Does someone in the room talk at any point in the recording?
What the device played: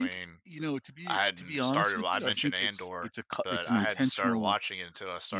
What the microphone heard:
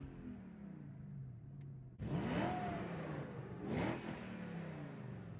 No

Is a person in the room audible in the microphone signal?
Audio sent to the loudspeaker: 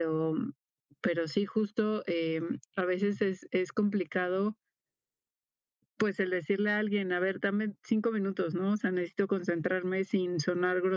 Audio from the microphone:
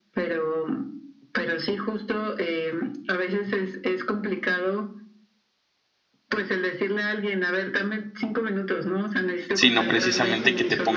Yes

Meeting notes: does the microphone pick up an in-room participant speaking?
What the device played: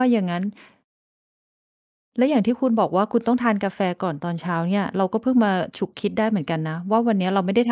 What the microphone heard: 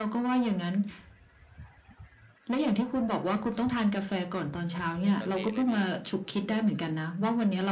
Yes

